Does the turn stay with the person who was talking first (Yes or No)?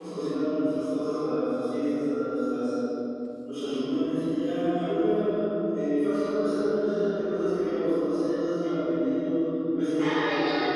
No